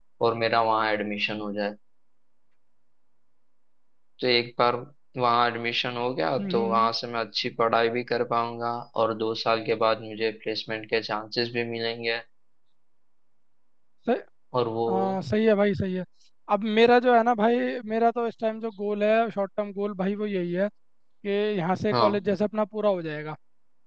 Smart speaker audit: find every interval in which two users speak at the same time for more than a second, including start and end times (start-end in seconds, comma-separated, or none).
none